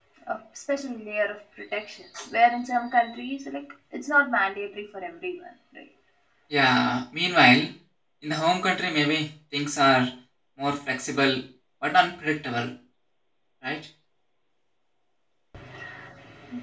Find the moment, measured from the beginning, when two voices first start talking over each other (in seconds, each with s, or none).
none